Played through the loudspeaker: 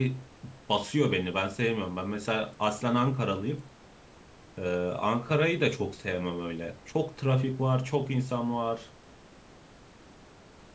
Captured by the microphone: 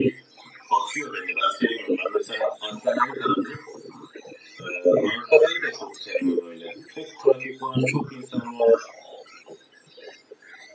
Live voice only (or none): none